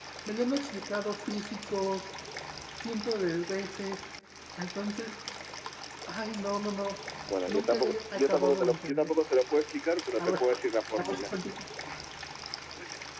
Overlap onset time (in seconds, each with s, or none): 7.5 s